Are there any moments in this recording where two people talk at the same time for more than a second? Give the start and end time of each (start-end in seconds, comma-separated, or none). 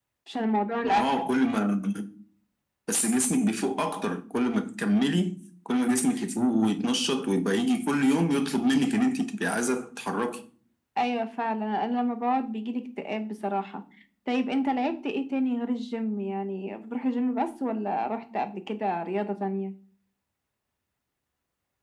none